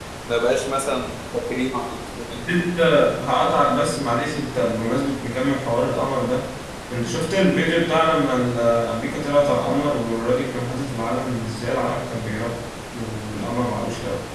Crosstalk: none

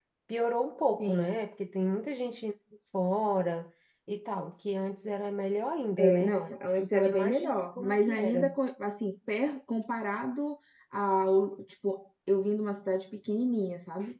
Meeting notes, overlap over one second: present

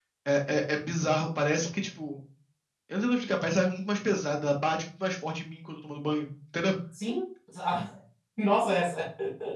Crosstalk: none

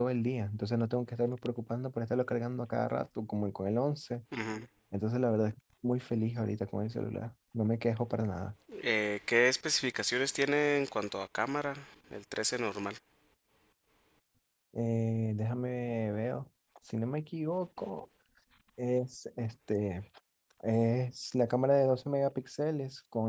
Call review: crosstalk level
none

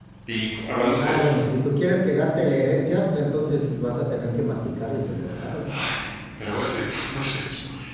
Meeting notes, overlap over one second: none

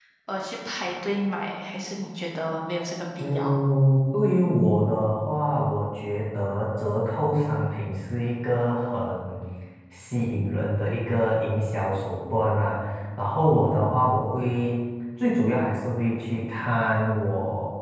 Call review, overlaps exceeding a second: none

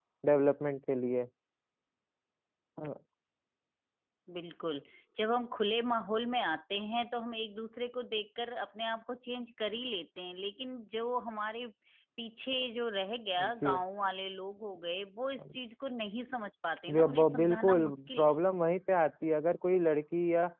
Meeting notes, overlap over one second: present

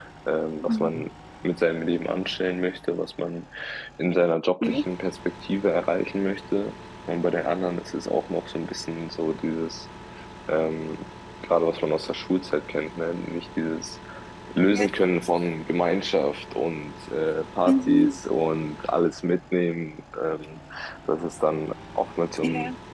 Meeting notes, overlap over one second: none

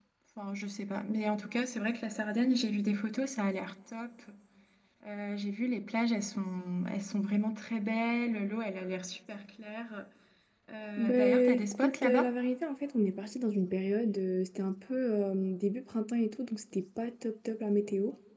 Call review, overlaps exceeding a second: present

